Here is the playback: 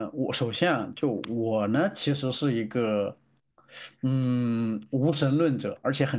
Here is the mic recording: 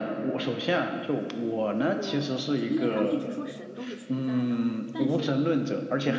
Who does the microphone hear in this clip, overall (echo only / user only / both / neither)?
both